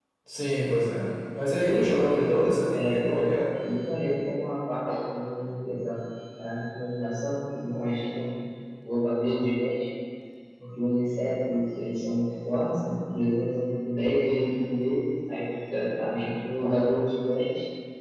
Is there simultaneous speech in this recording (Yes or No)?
Yes